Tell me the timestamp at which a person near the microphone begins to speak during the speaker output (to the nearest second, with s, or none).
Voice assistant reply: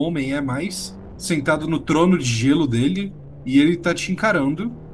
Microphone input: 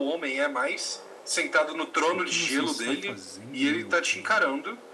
2 s